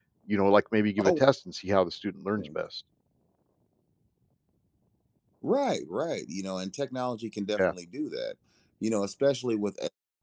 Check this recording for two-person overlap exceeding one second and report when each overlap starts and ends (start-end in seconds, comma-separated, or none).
none